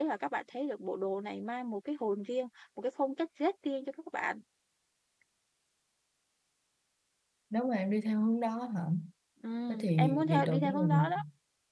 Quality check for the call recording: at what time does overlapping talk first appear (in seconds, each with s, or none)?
9.7 s